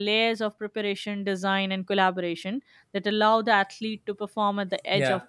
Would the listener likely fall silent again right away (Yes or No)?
No